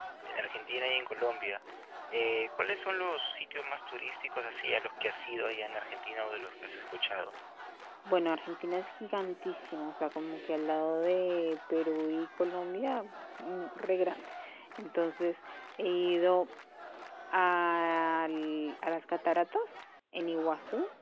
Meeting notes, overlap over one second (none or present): none